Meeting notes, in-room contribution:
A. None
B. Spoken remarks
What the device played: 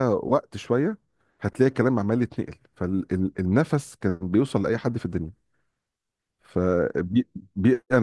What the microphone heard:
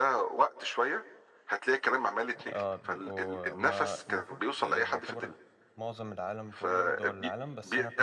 B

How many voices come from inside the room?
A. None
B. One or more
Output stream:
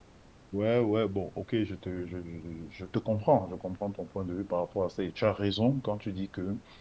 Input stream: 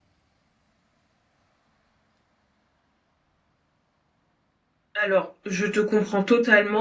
B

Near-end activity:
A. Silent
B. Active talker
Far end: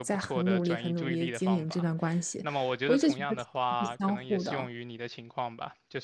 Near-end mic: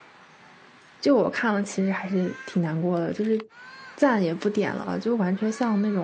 B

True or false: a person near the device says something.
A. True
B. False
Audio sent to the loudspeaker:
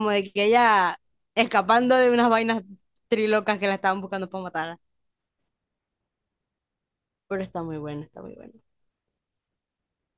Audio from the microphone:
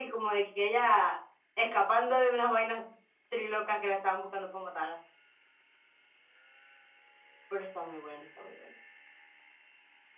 B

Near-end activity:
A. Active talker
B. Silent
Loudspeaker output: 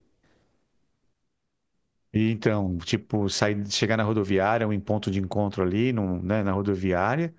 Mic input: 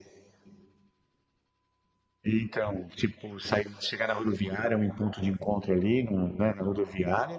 B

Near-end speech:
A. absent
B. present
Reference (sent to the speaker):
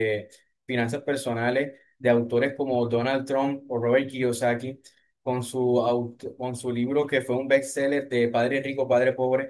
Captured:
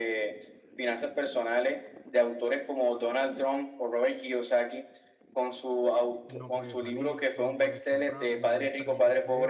B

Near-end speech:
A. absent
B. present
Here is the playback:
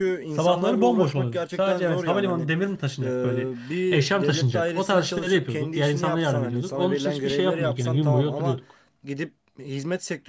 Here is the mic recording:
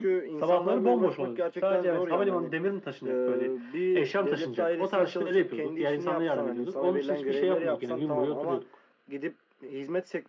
A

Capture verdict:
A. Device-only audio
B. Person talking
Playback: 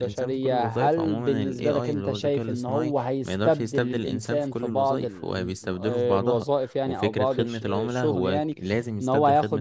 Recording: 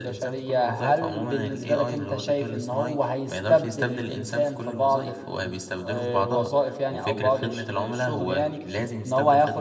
A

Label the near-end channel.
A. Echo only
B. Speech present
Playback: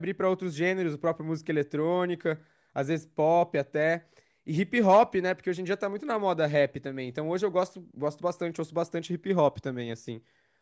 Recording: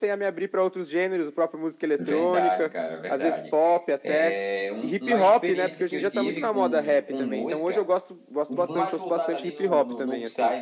B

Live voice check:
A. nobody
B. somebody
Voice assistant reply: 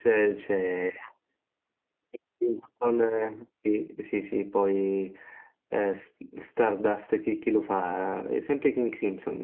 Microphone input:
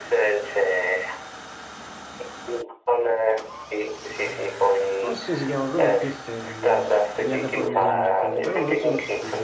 B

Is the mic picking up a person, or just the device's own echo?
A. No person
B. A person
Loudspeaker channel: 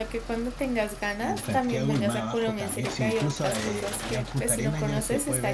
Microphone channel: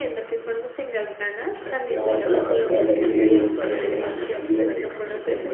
B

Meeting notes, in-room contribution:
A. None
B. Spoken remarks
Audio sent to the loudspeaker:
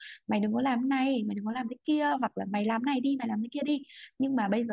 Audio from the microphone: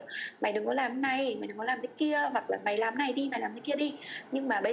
A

